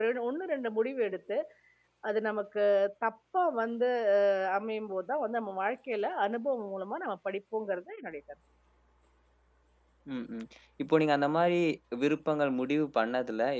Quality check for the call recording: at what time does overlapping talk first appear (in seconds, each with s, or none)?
none